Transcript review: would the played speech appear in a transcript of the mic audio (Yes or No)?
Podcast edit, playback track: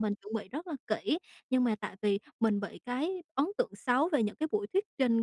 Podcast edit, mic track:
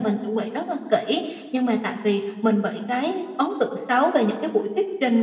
Yes